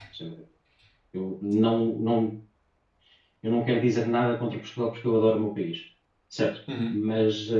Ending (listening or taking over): listening